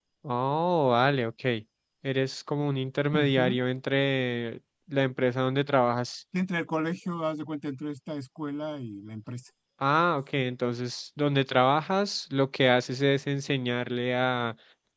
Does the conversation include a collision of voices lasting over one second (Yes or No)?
No